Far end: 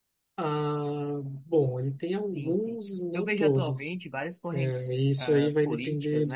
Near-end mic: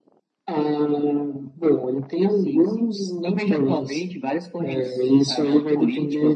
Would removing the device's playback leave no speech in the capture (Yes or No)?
Yes